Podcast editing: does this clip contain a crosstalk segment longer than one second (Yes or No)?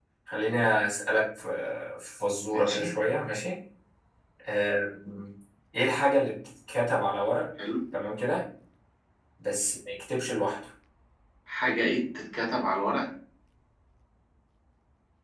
No